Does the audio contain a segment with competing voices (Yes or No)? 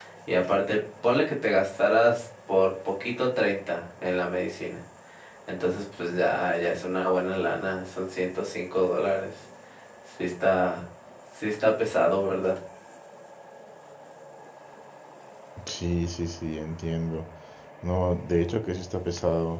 No